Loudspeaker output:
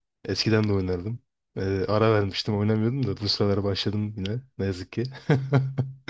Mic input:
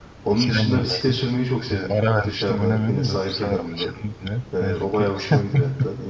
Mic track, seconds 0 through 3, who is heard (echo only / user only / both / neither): both